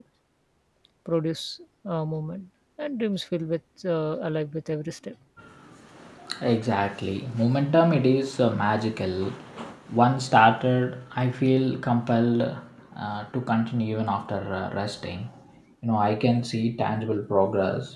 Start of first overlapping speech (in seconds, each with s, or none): none